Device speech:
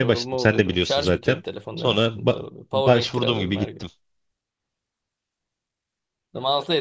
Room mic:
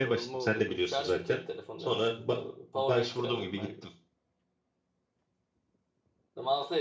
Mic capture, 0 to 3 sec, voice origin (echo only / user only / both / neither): echo only